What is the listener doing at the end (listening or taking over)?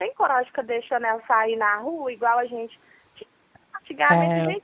listening